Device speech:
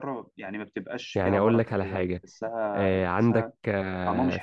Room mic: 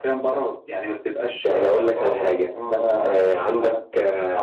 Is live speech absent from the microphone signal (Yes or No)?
No